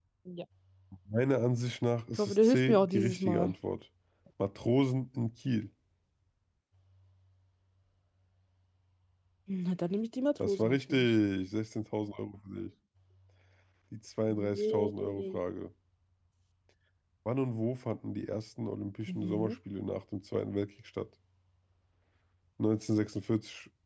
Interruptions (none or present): present